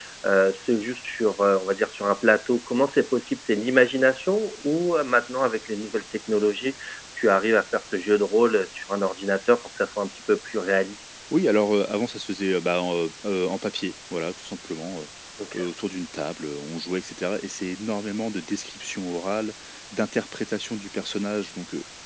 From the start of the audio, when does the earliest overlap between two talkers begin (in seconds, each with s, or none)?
none